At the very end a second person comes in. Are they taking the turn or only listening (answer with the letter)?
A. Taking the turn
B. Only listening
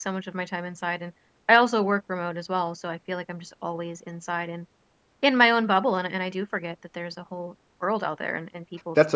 A